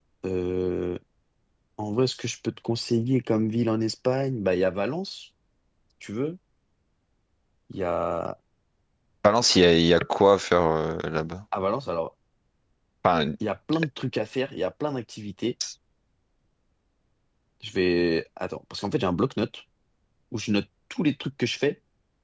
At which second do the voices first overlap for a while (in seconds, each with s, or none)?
none